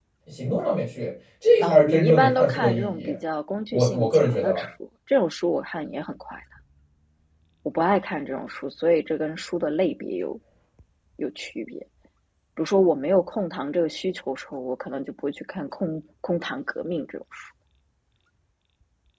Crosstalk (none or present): present